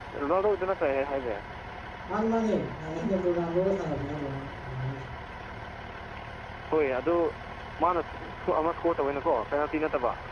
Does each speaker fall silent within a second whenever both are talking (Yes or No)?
Yes